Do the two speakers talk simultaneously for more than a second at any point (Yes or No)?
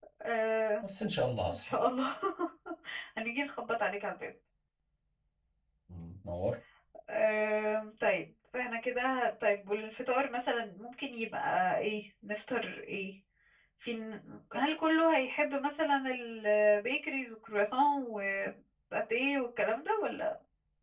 No